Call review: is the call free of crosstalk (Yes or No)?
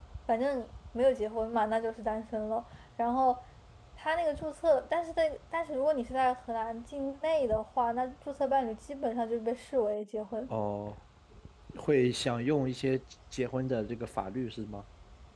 Yes